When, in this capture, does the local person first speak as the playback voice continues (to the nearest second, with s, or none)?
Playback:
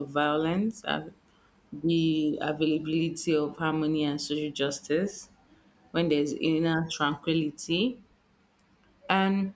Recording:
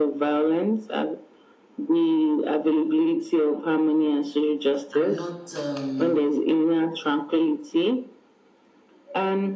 5 s